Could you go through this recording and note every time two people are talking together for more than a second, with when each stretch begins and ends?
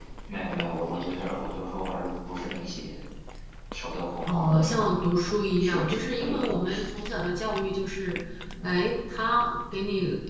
5.6-6.9

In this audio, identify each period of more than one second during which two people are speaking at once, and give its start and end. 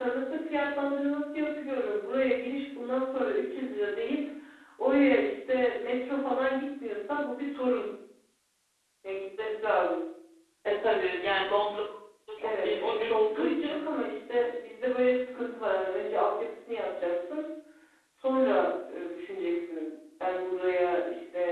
12.4-13.8

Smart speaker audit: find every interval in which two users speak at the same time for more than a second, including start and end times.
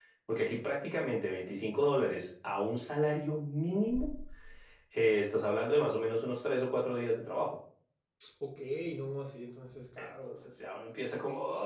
none

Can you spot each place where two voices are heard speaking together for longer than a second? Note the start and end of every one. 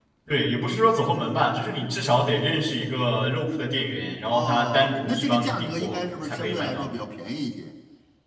4.3-6.9

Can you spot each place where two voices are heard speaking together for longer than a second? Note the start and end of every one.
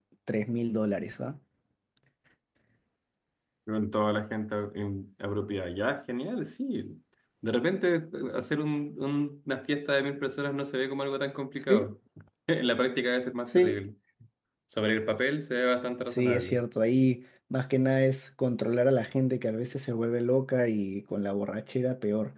none

